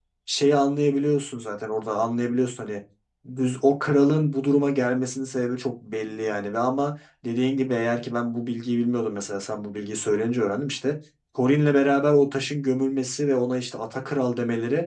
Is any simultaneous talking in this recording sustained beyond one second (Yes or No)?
No